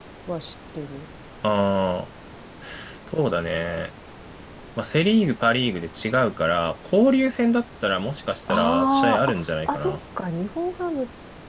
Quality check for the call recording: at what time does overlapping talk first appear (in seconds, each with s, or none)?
8.5 s